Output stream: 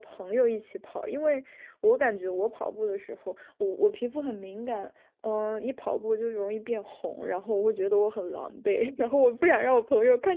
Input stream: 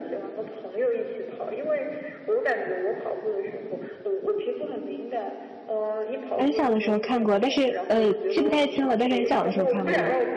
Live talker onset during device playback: 6.4 s

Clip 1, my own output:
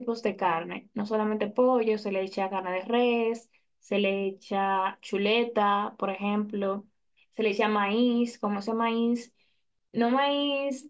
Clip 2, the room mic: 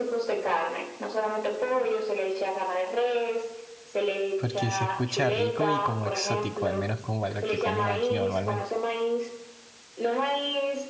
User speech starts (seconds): 4.4 s

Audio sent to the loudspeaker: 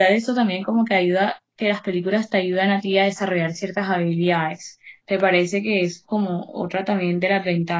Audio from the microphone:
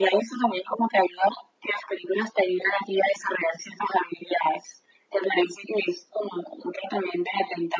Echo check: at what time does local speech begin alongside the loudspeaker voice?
none

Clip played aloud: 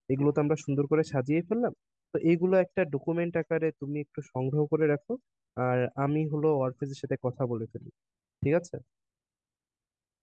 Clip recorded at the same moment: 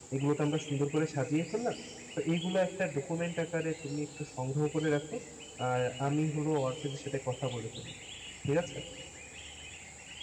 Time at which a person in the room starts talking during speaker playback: none

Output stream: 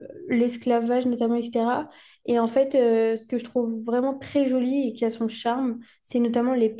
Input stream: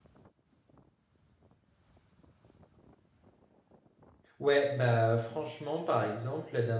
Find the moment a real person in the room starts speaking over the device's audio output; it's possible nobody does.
4.4 s

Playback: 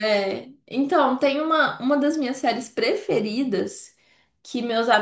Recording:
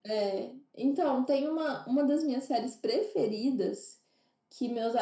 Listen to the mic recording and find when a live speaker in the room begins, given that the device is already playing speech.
none

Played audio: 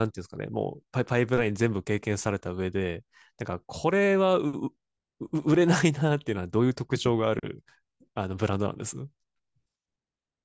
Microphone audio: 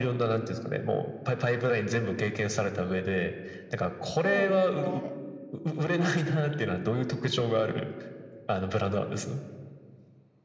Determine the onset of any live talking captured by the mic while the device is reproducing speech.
4.2 s

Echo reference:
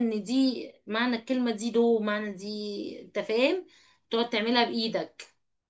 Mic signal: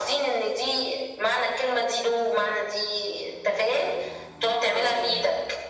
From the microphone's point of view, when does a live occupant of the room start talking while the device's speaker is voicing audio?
4.7 s

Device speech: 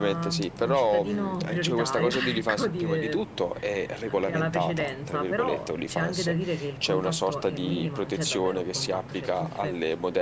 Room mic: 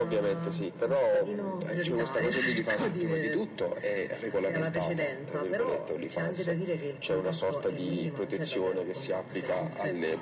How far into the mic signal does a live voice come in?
none

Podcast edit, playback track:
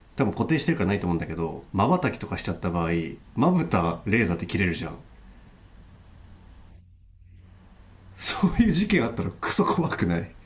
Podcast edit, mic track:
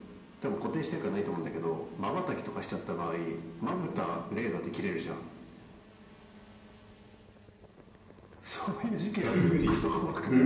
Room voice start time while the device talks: 9.2 s

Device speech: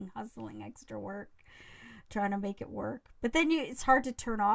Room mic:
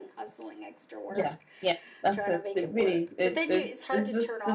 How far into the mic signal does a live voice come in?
1.1 s

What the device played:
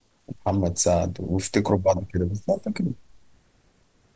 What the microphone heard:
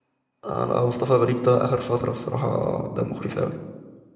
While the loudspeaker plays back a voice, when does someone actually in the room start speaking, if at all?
0.4 s

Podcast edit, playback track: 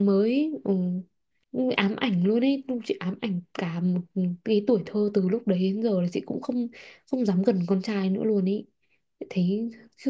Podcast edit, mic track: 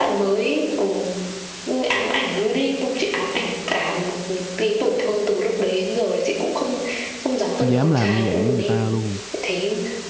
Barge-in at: 7.6 s

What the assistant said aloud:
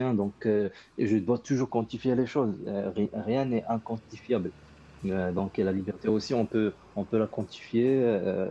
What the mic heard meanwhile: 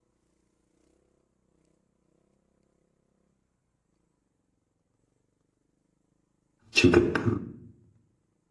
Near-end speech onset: 6.7 s

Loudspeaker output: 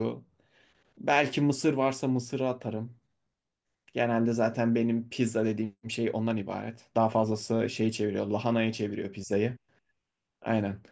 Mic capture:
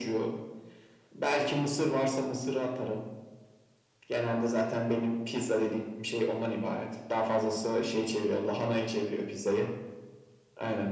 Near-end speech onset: none

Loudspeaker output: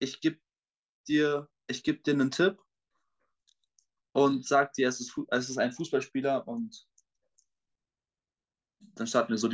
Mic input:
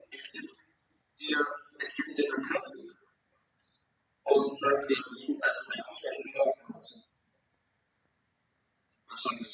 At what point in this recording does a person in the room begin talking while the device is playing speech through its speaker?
none

